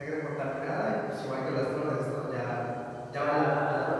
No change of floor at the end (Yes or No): No